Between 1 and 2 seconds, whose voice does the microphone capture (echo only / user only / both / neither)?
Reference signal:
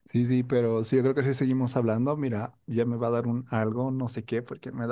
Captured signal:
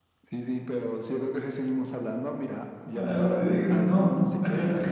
echo only